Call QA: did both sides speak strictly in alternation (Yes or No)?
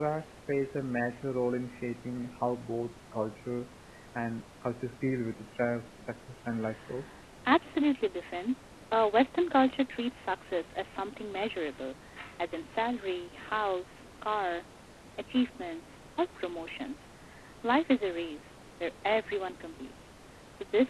Yes